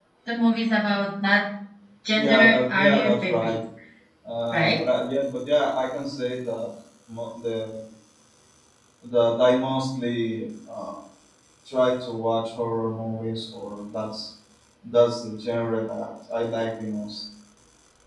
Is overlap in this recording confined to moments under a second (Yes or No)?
No